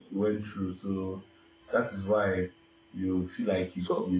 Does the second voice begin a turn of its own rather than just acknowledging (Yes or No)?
No